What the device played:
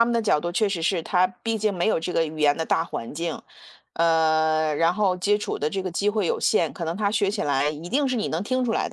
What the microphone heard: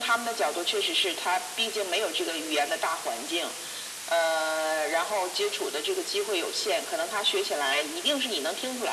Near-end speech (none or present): none